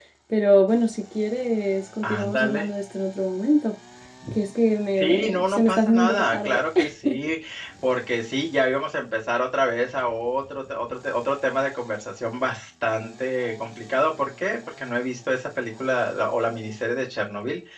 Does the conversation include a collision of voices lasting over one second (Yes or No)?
Yes